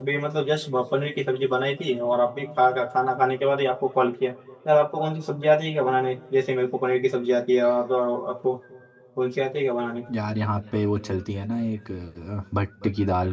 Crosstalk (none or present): none